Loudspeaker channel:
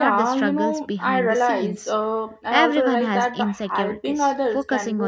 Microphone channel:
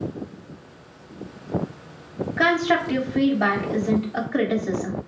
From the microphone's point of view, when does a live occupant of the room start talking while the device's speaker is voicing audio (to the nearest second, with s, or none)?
2 s